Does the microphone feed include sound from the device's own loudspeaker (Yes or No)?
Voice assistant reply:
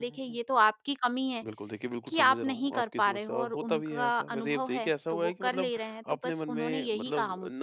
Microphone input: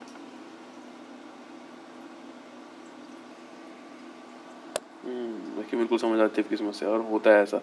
No